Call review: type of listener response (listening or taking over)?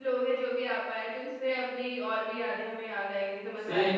taking over